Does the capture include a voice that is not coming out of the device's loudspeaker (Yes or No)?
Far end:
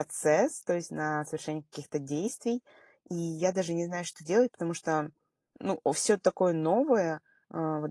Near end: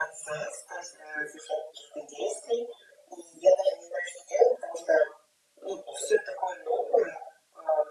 No